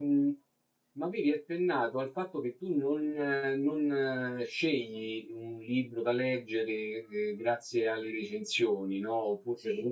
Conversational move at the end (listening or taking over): listening